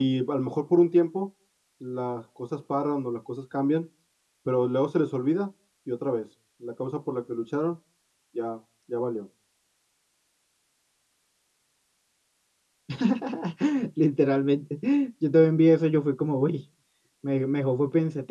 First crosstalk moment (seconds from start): none

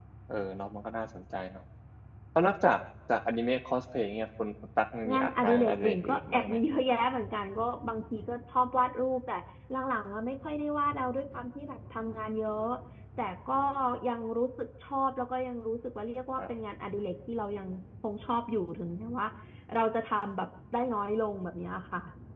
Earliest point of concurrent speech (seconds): 5 s

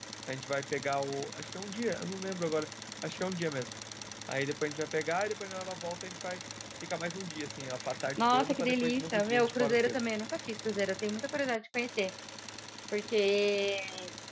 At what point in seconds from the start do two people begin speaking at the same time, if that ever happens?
8 s

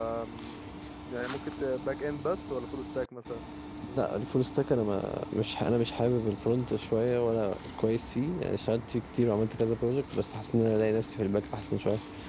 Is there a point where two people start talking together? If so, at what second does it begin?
none

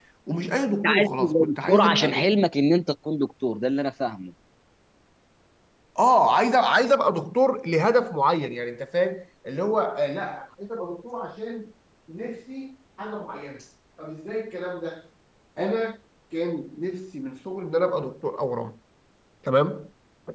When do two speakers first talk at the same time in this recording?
1 s

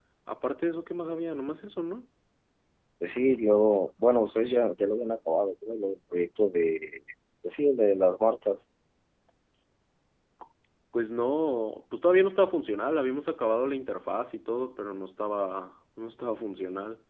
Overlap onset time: none

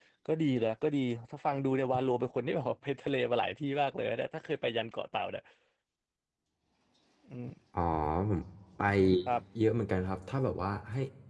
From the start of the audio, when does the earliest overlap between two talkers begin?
none

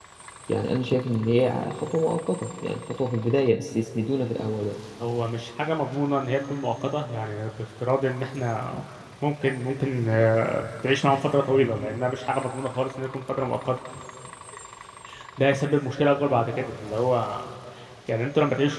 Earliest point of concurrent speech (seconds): none

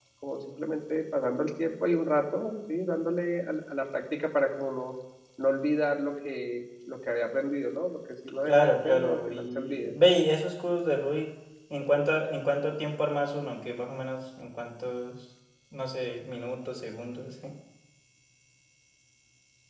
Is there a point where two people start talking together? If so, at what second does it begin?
8 s

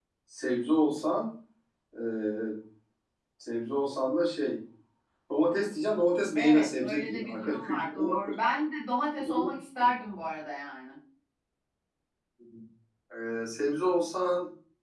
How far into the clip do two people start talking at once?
6 s

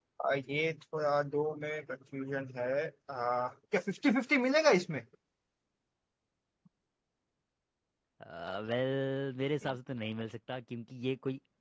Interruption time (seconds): none

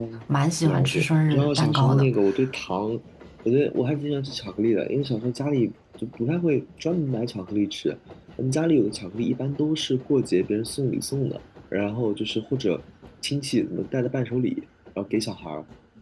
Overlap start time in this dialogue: 1 s

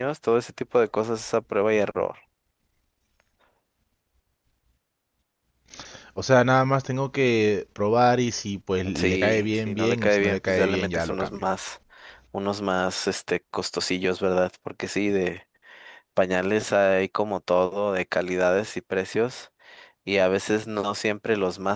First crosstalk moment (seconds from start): 9 s

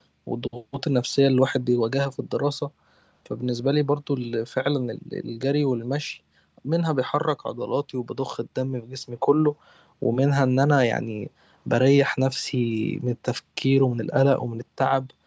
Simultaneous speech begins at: none

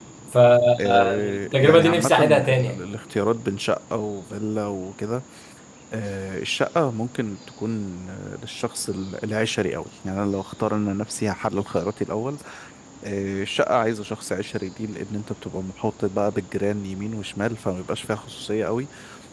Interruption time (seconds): 1 s

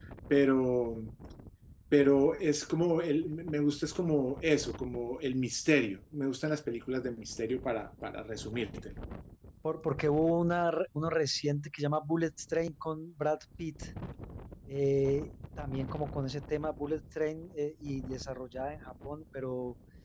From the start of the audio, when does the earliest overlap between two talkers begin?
none

